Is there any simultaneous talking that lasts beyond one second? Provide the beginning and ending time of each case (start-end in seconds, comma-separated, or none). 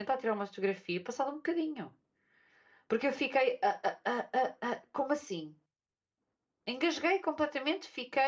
none